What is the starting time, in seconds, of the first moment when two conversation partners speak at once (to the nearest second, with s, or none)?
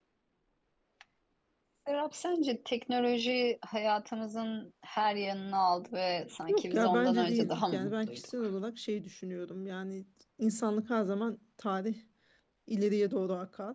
6 s